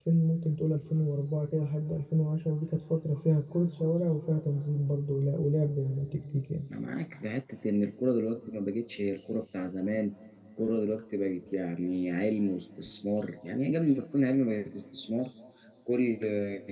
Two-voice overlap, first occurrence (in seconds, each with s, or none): none